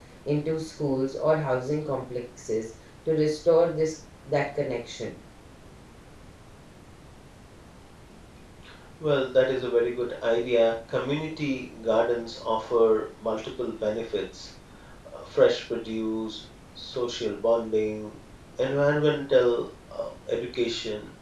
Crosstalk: none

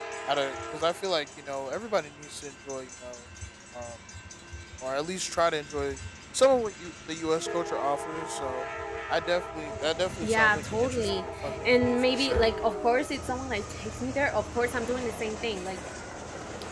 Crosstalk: present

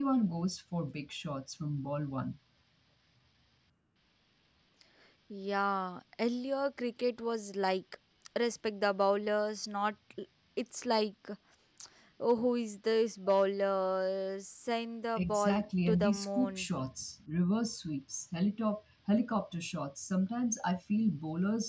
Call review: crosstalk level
present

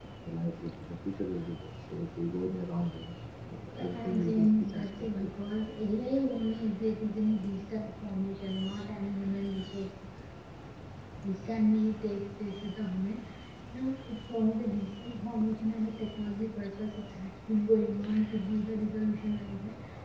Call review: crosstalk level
present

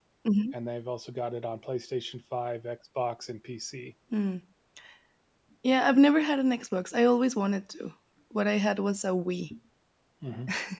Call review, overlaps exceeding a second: none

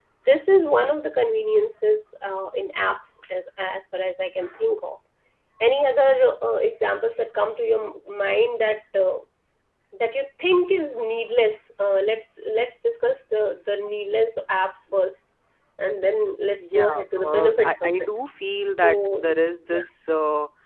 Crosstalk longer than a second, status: present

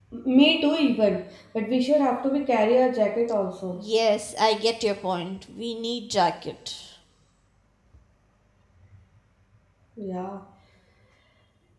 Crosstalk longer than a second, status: none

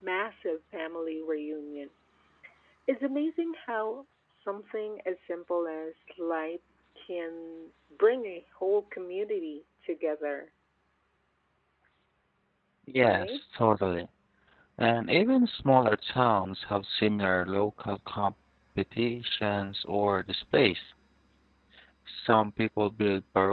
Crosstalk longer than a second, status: none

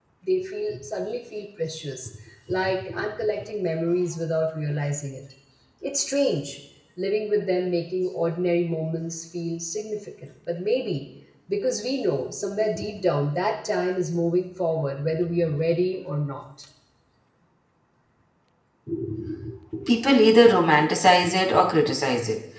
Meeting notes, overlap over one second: none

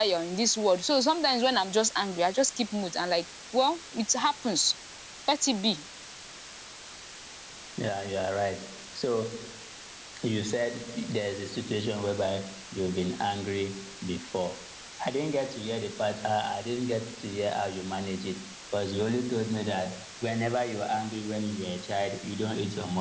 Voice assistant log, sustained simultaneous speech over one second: none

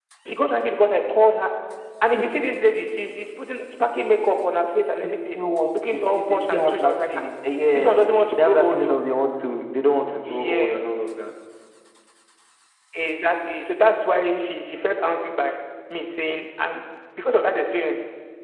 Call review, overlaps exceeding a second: present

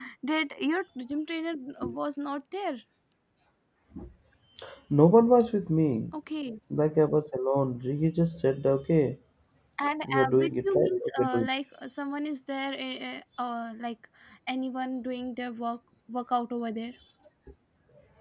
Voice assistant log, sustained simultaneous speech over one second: present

